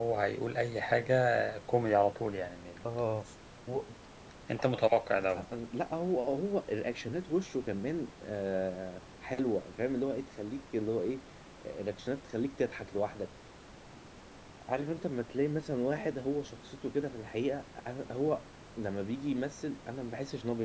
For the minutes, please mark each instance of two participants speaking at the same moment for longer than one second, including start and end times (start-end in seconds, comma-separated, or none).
none